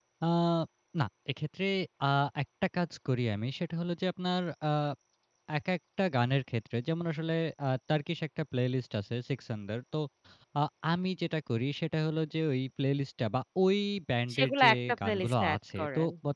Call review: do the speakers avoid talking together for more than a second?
No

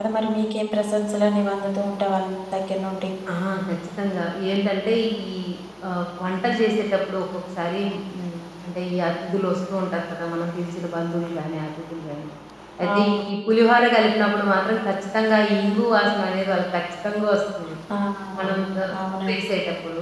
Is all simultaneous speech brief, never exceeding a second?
Yes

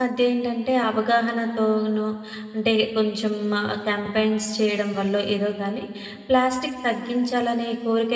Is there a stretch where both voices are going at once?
No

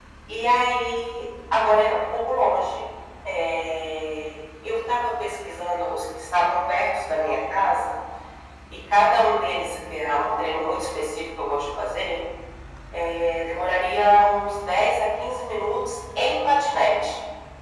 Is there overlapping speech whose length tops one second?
No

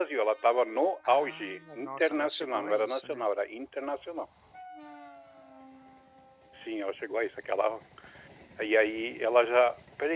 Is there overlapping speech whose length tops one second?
Yes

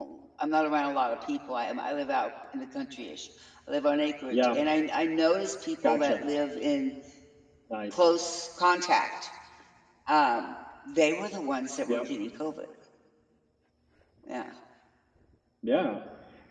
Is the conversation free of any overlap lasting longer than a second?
Yes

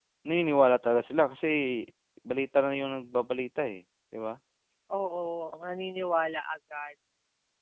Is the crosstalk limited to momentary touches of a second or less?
Yes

